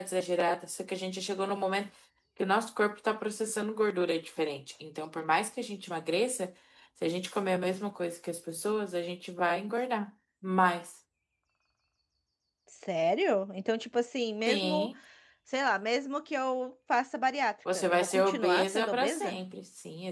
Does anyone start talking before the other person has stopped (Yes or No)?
Yes